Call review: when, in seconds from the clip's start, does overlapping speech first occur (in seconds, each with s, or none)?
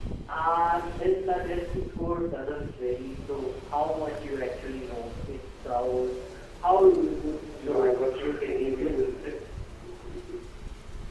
7.3 s